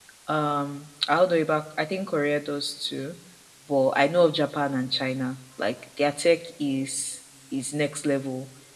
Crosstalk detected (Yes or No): No